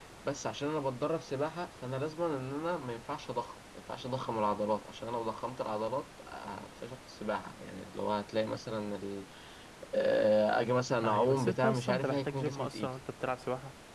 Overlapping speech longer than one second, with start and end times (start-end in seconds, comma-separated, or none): 11.1-12.9